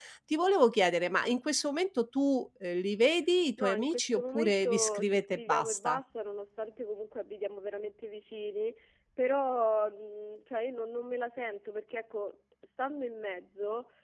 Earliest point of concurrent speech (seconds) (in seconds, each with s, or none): 3.6 s